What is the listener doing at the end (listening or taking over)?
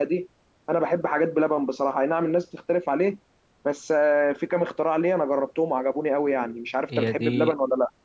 taking over